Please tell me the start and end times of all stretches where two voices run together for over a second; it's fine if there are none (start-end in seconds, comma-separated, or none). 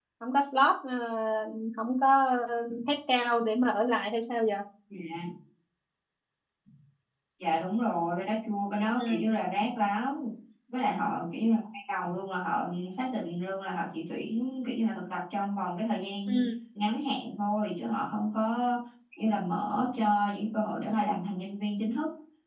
none